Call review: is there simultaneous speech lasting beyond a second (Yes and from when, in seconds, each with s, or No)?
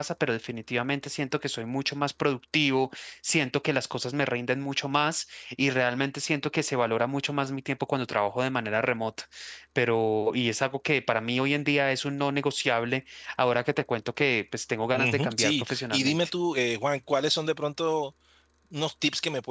Yes, from 15.0 s